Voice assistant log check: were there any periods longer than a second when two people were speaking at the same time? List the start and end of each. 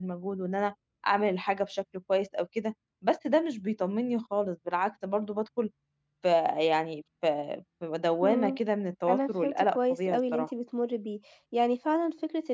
9.1-10.5

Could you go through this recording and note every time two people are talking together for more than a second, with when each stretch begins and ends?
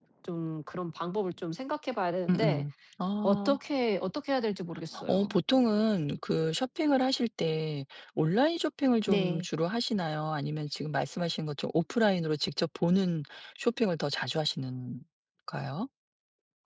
none

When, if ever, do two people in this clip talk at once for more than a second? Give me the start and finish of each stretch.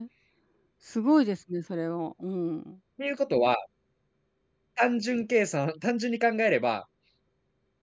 none

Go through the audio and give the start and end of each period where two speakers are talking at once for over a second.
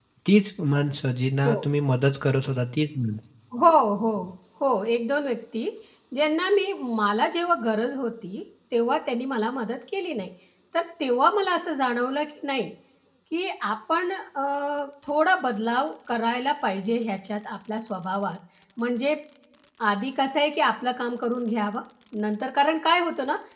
none

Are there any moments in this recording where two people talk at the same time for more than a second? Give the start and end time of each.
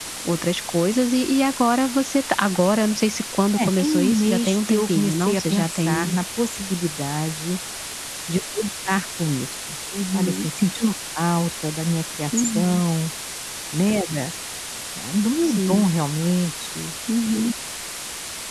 3.6-6.1

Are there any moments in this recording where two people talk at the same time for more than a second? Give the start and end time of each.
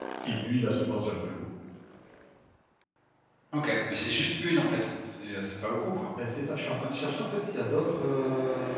none

